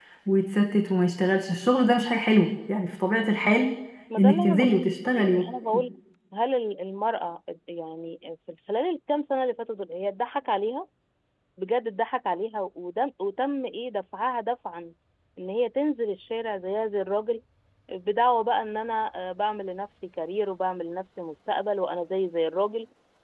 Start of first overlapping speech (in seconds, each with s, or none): 4.2 s